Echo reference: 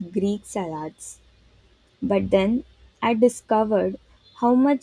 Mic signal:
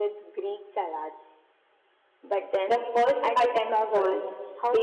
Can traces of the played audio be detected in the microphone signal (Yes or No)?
Yes